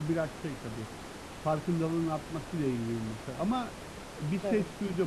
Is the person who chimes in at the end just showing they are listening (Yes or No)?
Yes